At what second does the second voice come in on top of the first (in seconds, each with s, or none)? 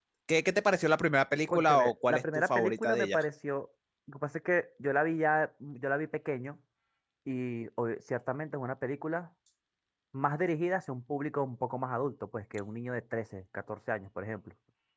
1.5 s